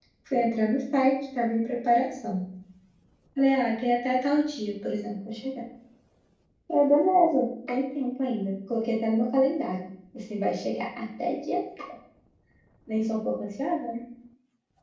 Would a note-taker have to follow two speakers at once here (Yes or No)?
No